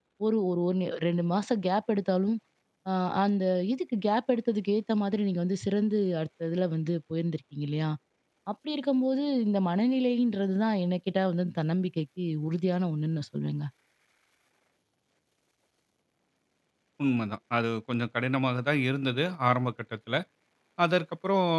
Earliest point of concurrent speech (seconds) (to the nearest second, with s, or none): none